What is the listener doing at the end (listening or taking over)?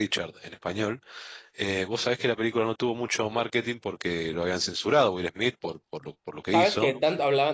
taking over